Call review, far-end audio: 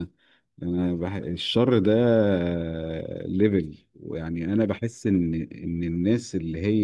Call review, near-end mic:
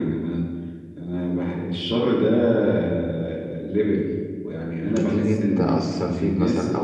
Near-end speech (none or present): present